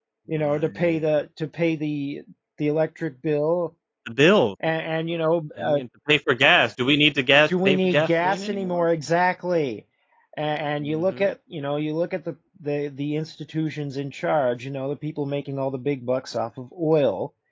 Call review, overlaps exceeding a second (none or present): present